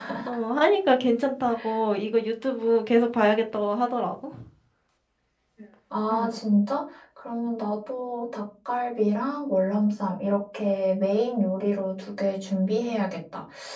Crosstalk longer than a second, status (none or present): none